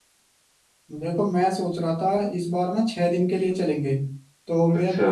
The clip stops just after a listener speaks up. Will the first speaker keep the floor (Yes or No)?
Yes